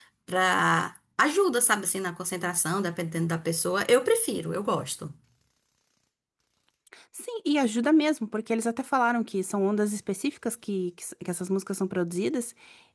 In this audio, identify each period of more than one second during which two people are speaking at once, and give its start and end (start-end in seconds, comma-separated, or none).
none